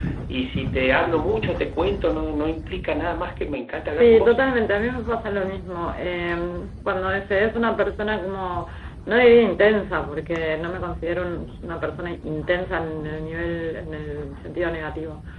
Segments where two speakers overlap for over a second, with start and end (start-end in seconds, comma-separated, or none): none